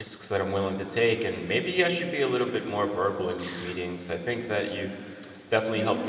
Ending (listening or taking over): listening